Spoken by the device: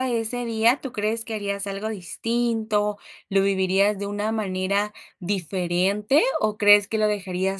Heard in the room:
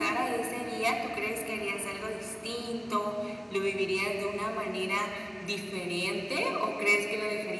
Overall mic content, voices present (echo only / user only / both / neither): echo only